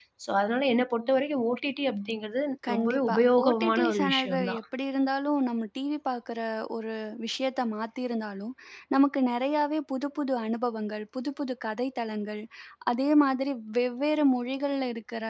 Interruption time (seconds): 2.6 s

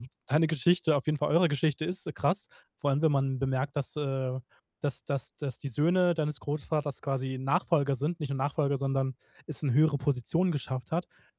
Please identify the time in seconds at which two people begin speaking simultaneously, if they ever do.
none

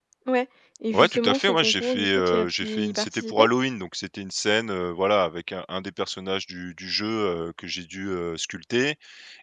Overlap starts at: 0.9 s

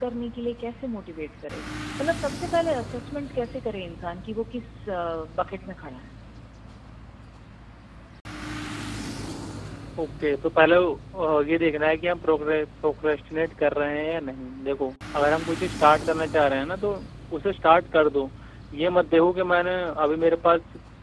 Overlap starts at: none

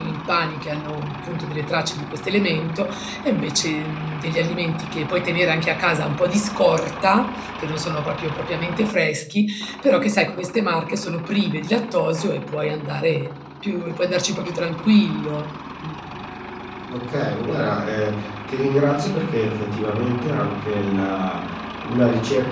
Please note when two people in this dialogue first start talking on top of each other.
none

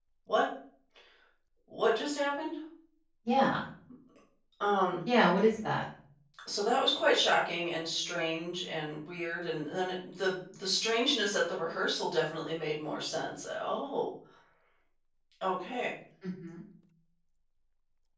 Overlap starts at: none

